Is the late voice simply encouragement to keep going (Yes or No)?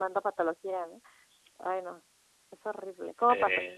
Yes